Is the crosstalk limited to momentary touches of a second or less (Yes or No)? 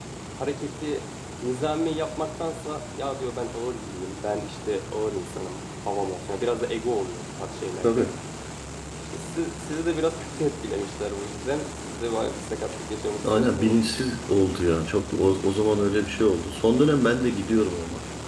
Yes